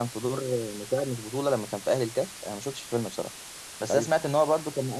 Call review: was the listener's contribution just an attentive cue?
Yes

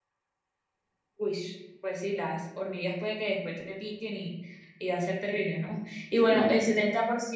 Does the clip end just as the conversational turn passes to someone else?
No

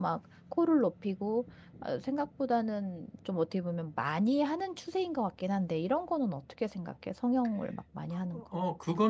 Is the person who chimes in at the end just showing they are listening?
No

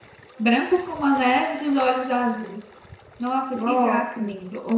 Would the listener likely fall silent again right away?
Yes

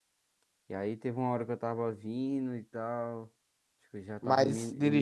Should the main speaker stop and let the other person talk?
No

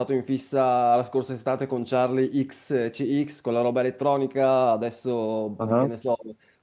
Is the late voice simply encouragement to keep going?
Yes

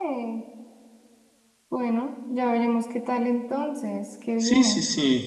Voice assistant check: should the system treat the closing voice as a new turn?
Yes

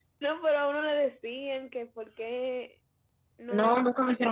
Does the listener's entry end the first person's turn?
Yes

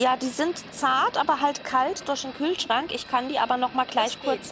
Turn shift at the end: No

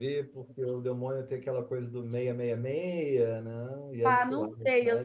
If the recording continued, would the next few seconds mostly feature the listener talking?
Yes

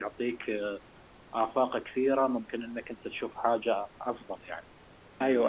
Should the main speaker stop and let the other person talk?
Yes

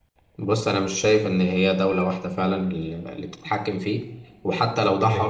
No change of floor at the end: Yes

